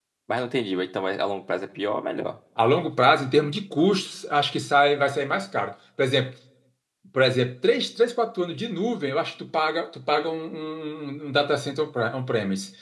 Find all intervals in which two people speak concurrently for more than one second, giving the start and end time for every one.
none

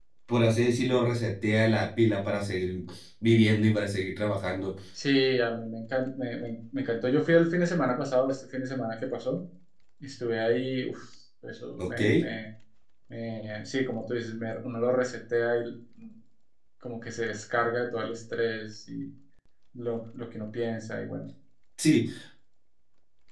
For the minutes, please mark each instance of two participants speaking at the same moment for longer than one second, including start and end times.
none

